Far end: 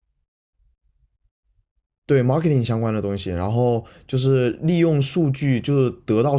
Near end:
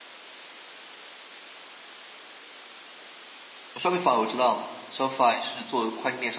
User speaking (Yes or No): Yes